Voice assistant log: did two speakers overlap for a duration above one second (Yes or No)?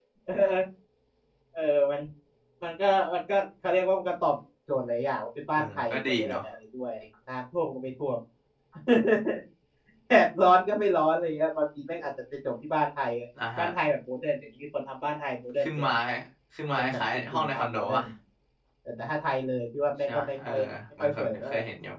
Yes